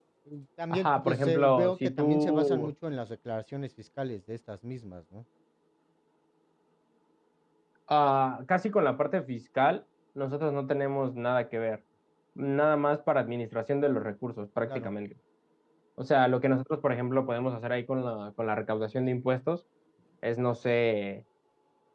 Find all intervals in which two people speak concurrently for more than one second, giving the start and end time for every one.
0.7-2.7

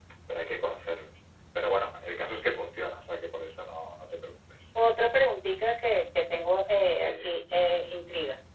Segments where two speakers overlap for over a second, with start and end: none

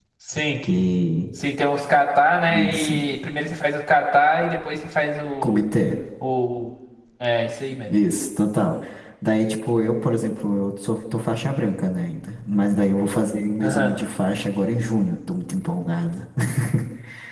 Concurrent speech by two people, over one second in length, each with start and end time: none

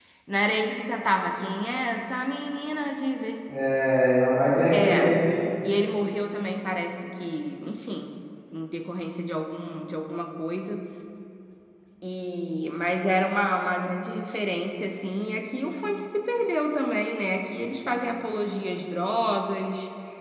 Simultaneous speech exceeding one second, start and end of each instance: none

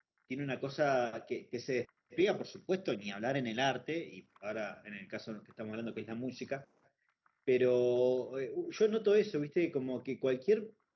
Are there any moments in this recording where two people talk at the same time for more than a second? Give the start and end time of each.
none

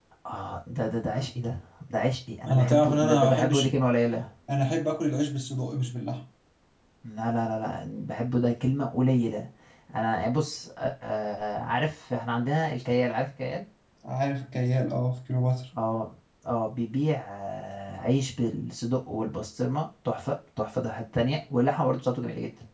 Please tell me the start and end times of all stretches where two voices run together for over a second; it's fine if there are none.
2.5-3.7

